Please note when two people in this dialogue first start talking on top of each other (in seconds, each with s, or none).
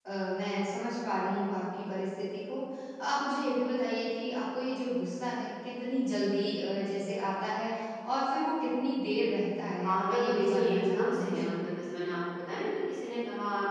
9.8 s